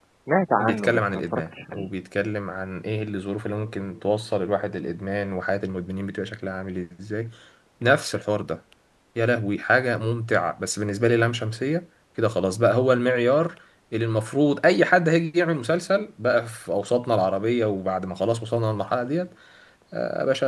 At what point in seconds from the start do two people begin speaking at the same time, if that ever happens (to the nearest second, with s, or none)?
1 s